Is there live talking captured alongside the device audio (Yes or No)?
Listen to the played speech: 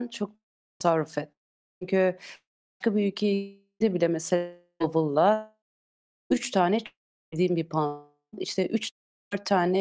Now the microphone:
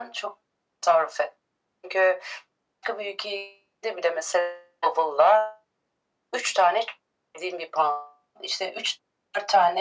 No